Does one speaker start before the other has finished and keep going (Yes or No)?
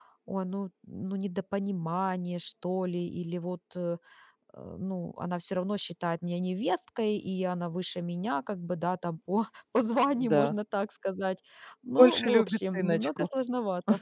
Yes